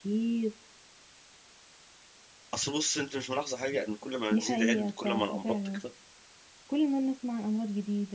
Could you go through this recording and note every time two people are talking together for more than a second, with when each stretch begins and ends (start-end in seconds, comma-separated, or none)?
4.3-5.8